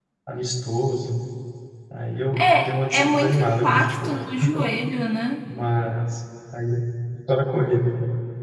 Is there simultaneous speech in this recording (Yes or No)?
Yes